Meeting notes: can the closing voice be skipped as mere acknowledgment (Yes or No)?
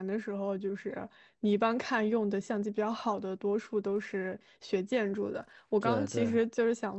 Yes